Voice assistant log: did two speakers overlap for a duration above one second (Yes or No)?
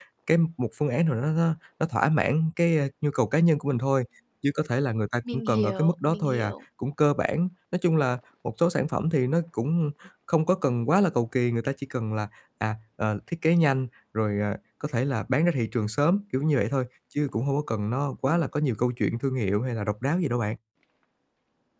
Yes